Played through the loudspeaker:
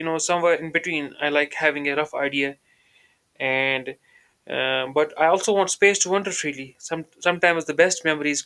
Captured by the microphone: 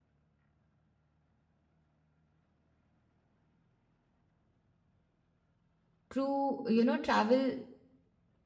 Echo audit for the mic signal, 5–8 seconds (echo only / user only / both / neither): user only